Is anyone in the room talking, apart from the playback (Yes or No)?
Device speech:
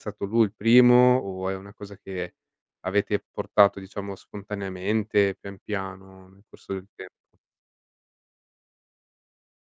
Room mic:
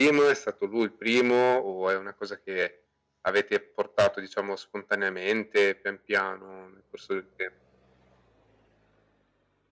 No